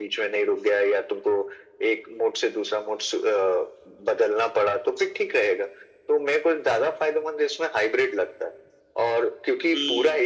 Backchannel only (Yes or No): Yes